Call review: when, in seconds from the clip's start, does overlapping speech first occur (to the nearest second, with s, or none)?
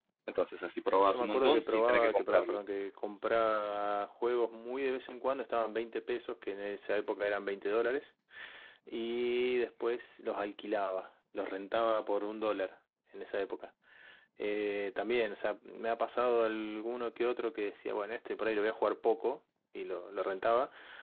1 s